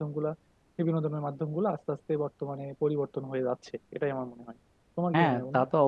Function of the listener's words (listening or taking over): taking over